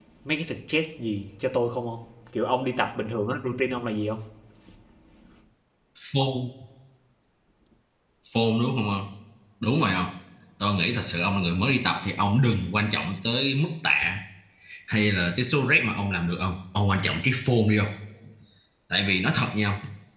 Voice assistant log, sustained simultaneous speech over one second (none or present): none